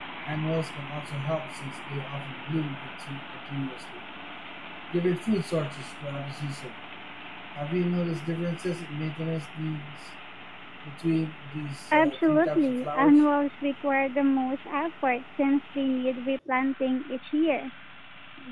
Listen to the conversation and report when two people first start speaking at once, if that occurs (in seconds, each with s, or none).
11.9 s